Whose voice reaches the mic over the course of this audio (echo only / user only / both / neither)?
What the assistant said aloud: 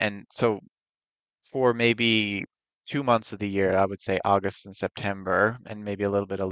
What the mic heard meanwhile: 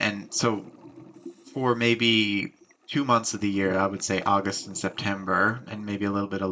echo only